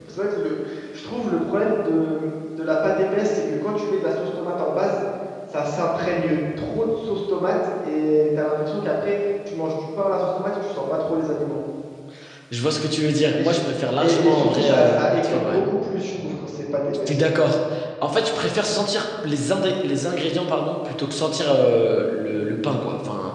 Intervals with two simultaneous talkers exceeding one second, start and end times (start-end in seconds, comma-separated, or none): 14.0-15.6